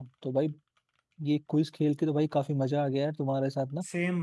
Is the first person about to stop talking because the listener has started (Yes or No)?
No